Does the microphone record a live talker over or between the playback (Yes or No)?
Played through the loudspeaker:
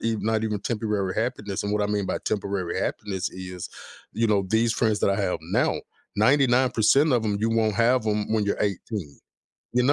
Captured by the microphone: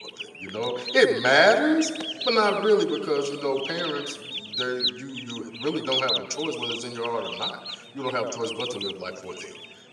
Yes